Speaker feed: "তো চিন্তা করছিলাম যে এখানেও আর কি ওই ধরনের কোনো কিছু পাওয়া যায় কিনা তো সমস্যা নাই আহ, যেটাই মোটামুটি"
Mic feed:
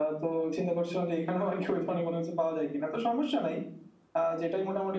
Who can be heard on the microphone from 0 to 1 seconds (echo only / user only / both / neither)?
echo only